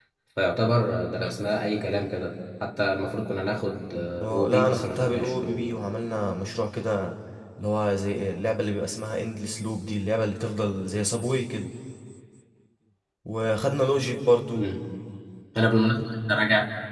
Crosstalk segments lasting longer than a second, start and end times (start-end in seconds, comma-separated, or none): 4.2-5.7